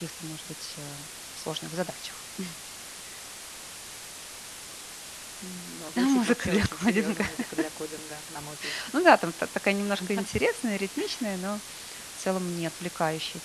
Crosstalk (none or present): present